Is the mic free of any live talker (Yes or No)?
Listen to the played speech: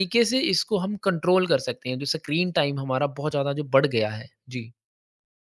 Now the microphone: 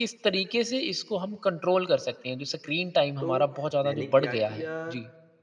No